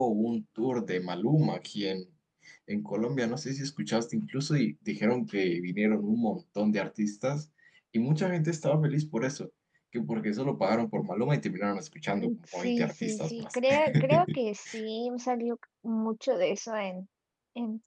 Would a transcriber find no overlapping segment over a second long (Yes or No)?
No